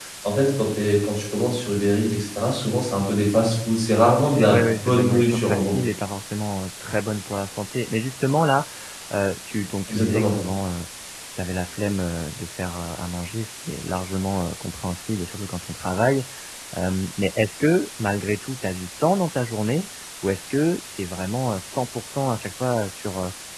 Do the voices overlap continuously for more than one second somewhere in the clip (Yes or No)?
Yes